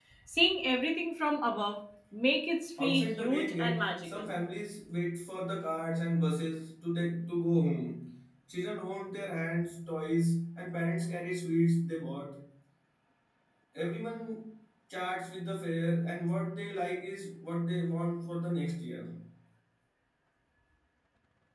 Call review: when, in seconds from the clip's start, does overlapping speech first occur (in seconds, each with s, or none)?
2.8 s